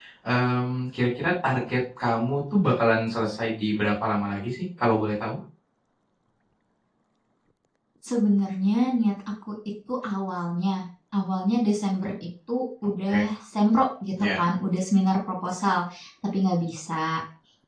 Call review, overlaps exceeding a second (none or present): none